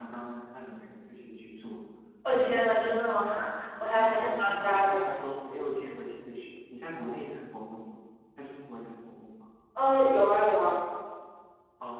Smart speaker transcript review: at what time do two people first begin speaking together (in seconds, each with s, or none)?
3.9 s